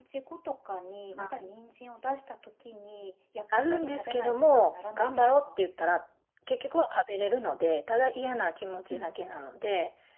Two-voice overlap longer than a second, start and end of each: 3.7-5.5

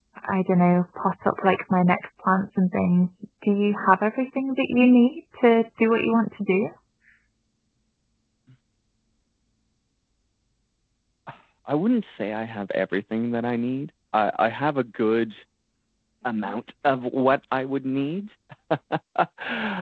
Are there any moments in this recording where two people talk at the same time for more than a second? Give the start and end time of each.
none

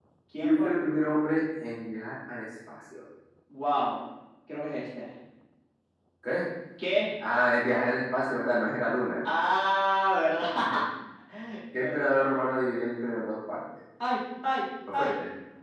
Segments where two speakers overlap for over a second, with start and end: none

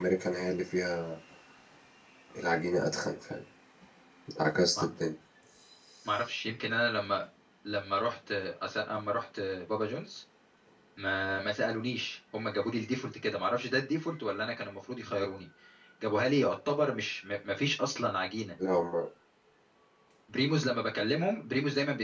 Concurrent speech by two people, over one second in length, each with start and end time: none

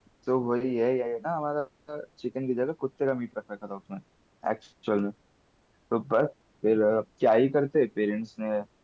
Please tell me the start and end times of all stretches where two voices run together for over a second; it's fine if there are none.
none

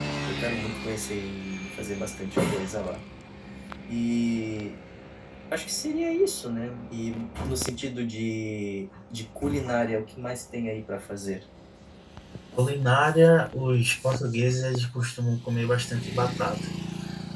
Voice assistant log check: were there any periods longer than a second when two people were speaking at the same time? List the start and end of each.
none

